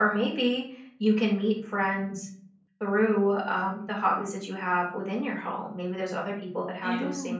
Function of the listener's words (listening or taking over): listening